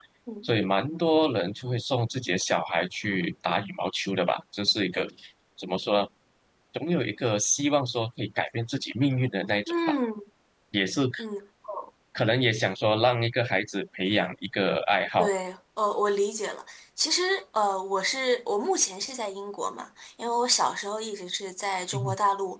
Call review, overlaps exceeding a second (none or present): none